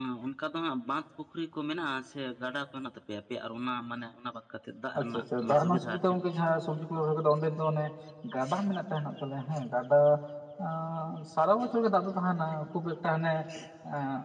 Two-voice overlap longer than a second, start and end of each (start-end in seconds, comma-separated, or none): 5.0-6.2